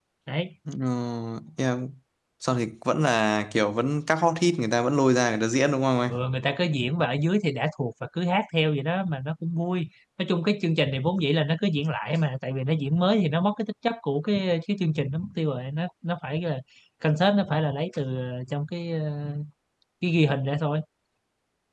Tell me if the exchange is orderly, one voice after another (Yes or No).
Yes